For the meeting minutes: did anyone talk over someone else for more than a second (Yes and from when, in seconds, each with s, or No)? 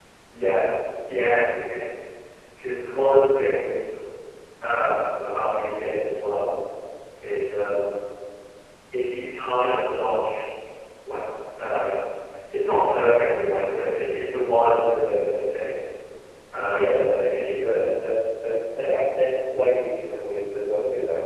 No